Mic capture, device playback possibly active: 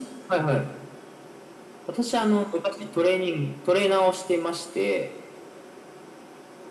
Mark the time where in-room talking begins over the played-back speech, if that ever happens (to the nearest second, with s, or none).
none